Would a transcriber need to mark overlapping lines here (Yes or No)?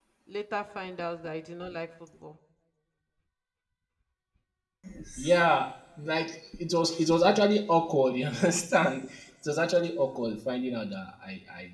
No